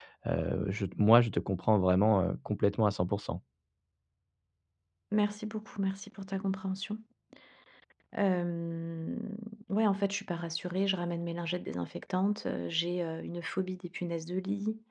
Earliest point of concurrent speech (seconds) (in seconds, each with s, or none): none